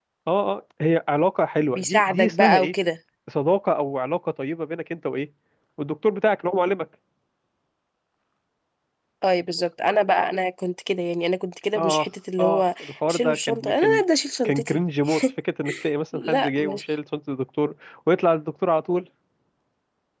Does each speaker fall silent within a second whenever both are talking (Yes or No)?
No